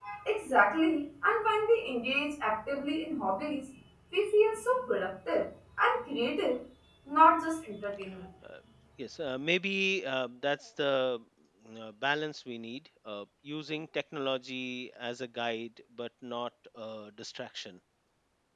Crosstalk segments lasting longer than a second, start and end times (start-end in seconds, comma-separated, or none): none